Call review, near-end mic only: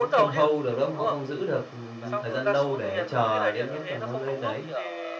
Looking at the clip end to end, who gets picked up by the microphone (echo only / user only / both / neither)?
both